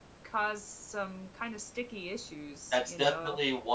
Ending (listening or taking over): taking over